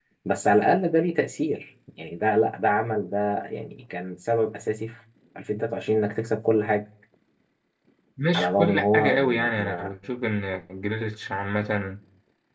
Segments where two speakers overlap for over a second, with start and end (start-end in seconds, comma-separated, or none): 8.3-9.9